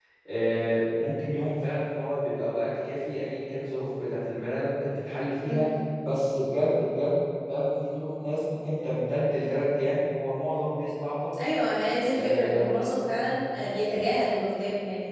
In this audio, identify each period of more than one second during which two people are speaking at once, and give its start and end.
12.1-13.4

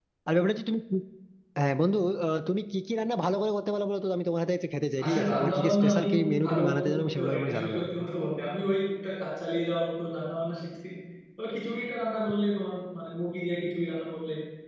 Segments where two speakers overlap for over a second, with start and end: 5.0-7.9

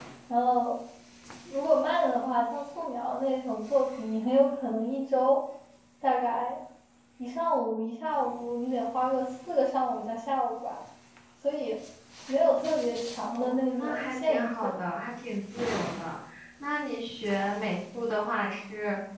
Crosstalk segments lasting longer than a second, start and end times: 13.4-14.7

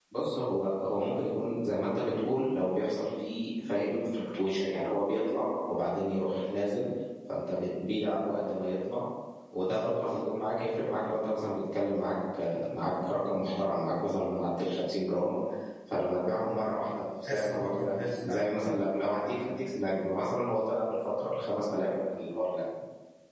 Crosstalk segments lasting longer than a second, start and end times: 17.2-18.5

